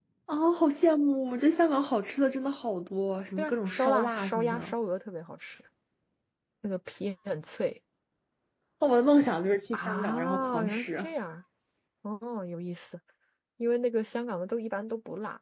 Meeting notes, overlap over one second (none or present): present